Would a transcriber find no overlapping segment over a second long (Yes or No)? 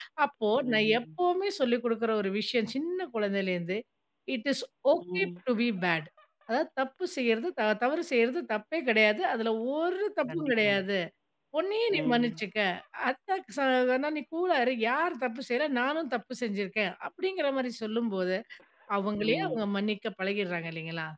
Yes